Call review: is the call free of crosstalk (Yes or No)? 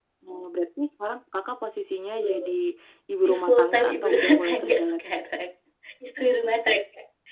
No